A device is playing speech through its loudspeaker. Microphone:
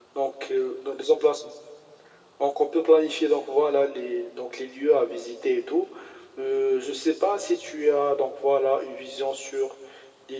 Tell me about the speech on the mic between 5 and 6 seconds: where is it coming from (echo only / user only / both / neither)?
echo only